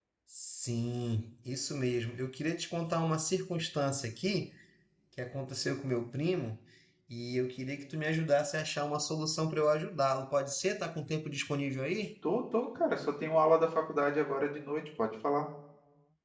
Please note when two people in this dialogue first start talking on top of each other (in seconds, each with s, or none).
none